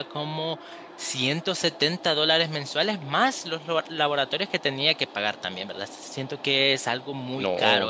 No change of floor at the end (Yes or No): No